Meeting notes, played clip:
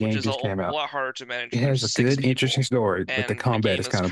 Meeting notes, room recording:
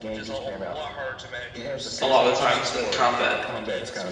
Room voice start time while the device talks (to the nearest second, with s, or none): 2 s